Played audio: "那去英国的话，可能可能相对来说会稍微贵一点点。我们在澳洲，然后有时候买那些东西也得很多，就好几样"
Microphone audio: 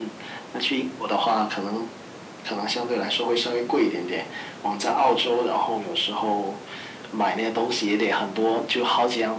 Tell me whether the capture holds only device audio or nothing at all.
Yes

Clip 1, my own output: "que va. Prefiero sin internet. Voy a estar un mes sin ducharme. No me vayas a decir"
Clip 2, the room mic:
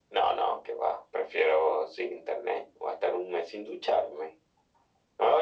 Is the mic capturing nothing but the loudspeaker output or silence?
Yes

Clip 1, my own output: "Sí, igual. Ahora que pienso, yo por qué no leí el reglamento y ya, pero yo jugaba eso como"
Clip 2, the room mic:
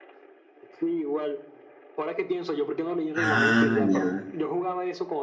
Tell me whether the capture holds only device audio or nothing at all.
No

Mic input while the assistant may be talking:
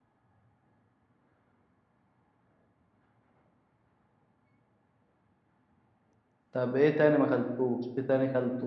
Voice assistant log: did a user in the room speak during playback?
Yes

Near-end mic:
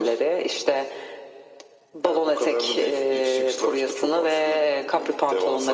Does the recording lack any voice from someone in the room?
Yes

